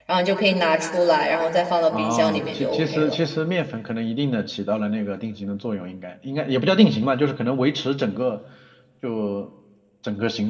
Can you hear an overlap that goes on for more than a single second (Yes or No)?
Yes